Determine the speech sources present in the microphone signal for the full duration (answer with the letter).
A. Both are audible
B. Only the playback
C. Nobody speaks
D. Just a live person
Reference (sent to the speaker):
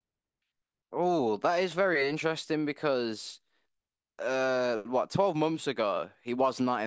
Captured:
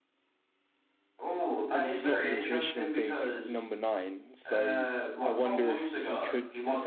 A